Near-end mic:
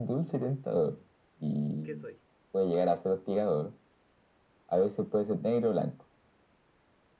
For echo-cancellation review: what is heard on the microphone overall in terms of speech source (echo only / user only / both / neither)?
both